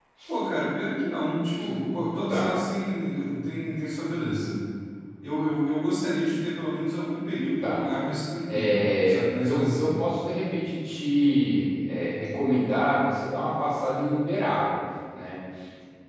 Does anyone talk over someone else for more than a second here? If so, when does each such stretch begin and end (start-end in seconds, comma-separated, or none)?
8.5-10.0